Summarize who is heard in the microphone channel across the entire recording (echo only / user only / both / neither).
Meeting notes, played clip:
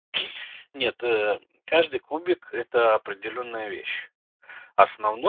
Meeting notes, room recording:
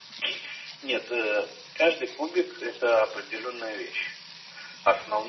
echo only